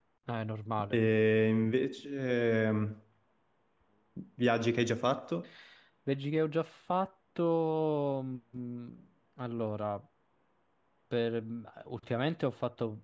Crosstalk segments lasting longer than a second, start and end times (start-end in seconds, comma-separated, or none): none